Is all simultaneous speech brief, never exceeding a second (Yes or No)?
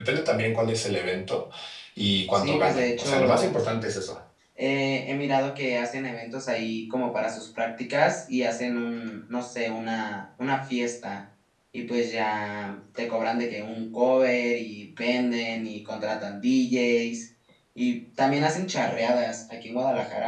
No